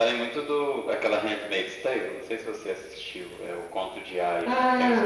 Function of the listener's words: taking over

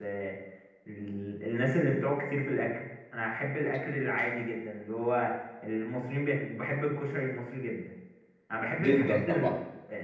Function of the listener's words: listening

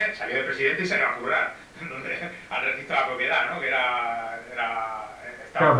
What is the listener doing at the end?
taking over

